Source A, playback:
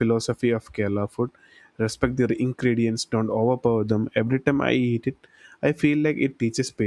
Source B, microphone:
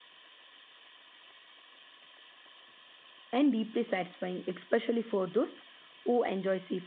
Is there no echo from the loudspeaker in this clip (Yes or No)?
Yes